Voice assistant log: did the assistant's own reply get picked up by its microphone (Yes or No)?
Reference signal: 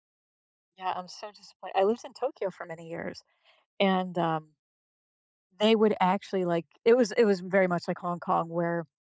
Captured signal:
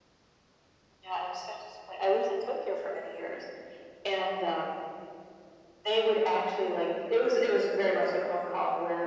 Yes